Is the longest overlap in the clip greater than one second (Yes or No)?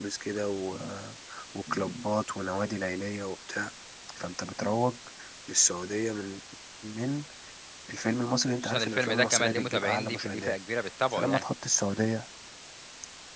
Yes